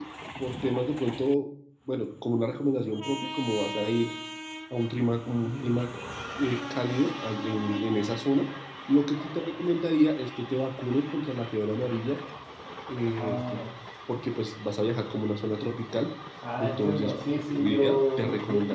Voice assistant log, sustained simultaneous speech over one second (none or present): present